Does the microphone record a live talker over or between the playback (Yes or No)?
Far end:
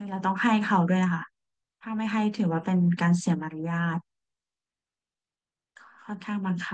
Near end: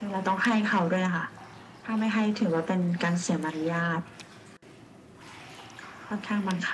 No